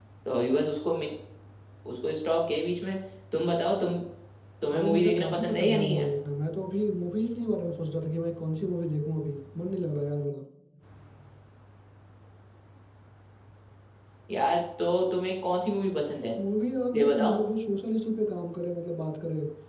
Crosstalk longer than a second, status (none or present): present